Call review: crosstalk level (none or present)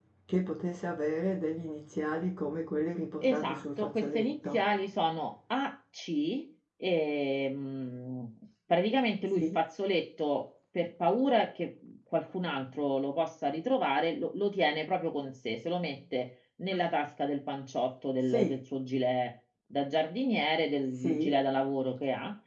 present